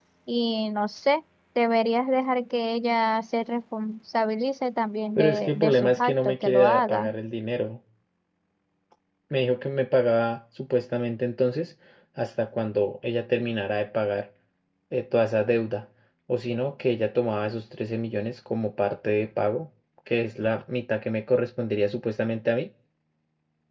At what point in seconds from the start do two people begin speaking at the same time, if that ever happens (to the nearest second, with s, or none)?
5 s